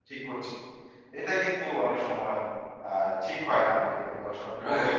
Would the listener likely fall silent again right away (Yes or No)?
No